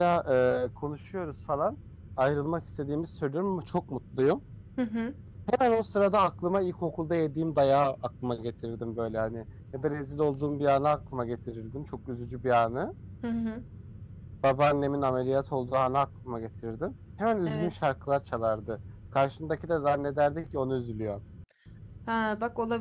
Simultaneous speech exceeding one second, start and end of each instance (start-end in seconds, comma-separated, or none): none